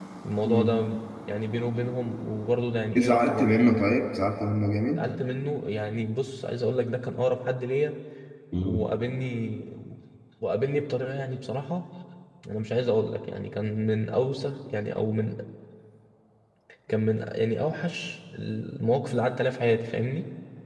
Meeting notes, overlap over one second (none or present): none